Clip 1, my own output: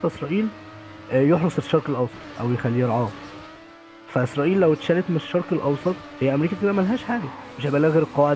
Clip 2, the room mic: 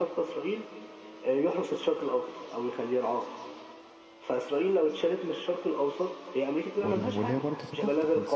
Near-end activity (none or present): present